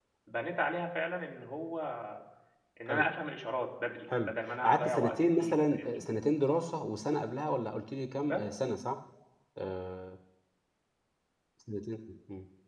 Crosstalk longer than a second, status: present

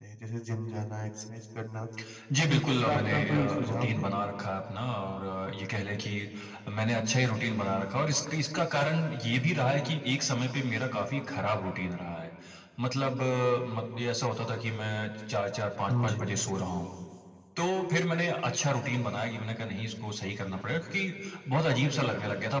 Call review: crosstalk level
present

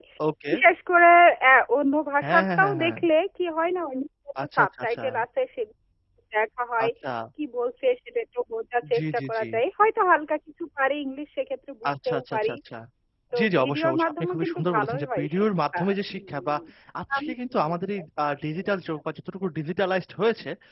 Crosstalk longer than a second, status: present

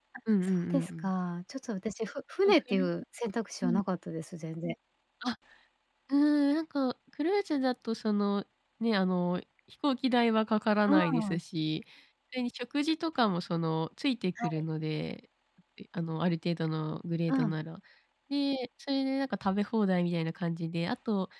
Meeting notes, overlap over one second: none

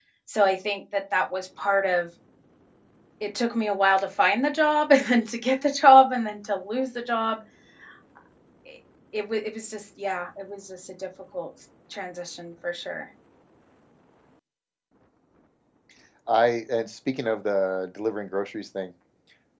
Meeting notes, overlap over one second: none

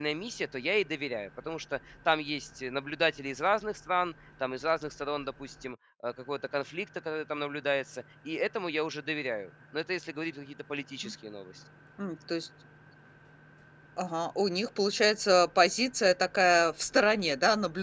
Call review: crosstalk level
none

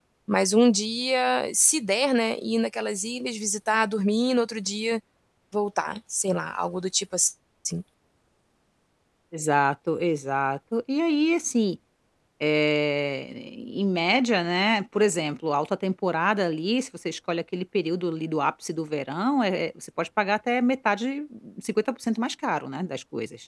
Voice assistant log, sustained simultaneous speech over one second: none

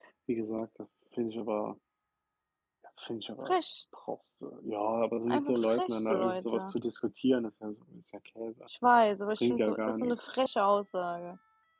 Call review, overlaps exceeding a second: present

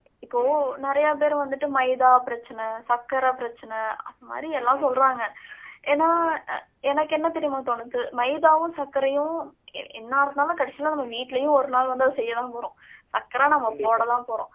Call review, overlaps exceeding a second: none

